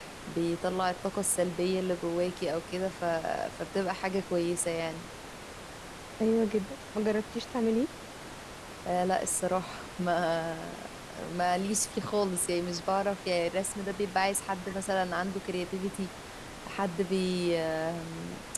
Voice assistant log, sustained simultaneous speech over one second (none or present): none